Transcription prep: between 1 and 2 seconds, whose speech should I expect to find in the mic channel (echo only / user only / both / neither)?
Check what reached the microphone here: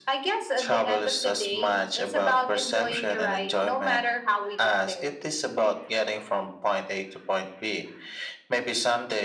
echo only